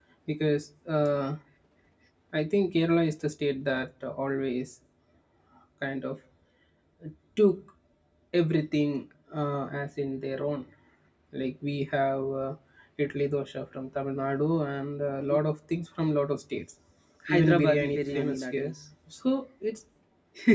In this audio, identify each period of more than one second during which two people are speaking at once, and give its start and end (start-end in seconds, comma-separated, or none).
17.3-18.7